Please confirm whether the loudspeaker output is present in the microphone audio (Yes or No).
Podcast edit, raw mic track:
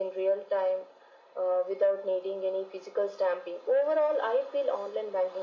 Yes